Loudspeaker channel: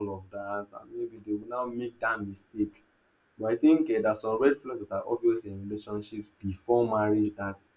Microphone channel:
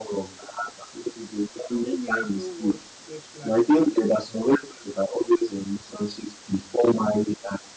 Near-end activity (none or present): present